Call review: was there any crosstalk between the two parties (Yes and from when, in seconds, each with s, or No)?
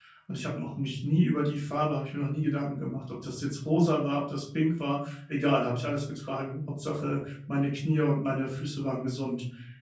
No